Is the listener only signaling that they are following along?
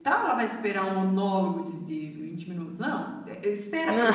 Yes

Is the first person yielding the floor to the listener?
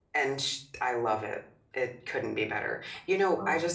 No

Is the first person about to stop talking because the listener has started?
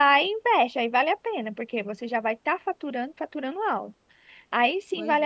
No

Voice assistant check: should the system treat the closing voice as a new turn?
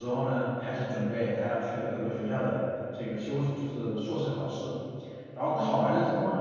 No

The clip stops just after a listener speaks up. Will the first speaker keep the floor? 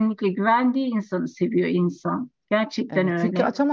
No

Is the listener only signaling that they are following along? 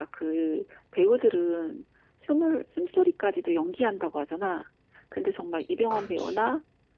Yes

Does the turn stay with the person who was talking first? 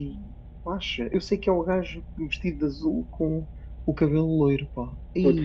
No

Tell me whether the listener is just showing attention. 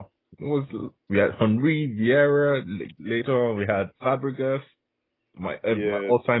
Yes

